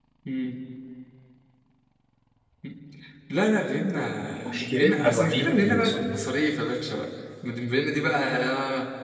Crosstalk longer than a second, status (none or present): present